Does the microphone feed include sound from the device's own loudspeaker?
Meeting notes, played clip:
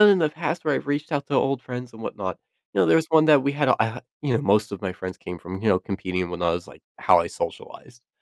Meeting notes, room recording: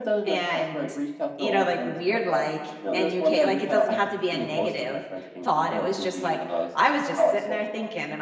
Yes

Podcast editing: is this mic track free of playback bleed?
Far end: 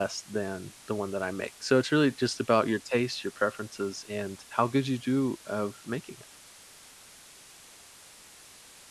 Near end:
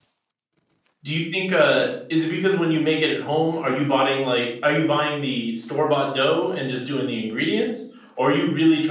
Yes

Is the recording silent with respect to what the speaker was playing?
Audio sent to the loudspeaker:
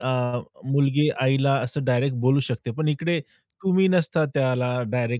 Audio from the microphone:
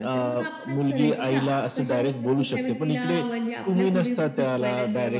No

